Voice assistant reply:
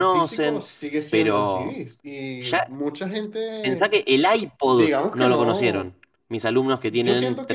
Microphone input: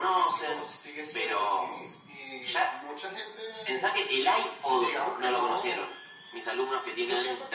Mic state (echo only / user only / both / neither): echo only